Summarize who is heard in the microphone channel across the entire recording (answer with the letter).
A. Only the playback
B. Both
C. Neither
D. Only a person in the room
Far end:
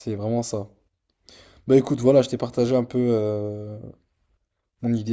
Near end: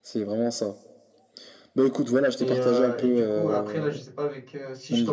B